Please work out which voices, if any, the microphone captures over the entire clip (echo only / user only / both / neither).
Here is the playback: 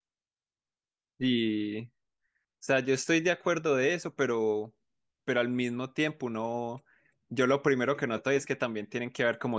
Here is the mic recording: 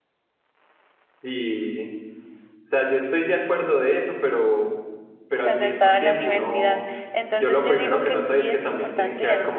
both